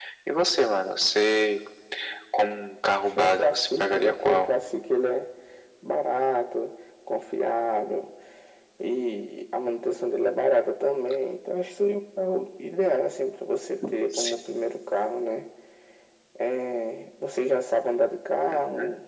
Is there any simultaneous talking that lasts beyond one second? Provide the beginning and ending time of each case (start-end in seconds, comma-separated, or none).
3.0-4.5